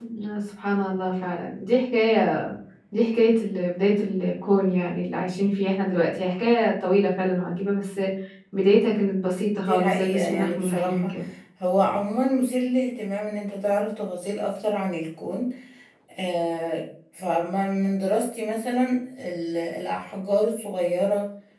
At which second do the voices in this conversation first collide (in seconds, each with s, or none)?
9.7 s